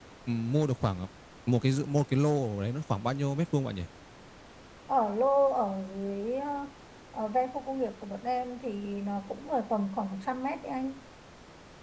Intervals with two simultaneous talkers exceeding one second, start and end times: none

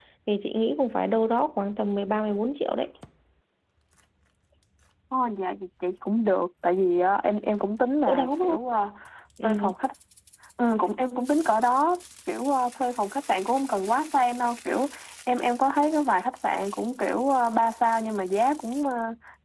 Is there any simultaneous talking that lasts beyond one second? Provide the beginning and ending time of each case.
none

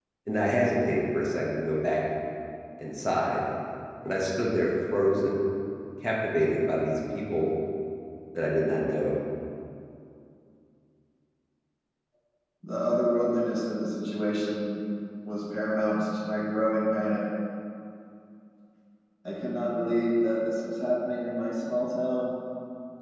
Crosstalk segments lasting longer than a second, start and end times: none

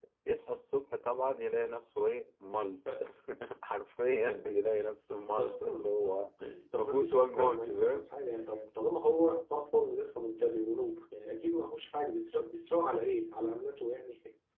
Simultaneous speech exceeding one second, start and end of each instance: 6.8-8.0

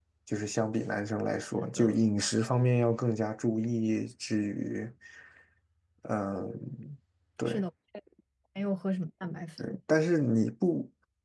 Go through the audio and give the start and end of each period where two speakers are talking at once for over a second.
none

